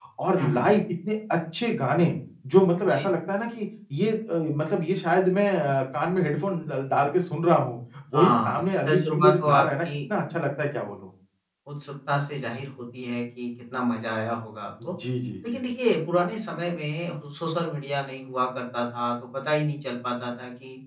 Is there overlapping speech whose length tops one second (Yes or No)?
Yes